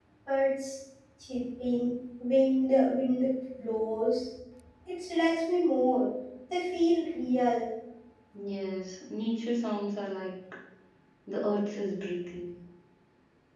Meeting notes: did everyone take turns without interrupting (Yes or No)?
Yes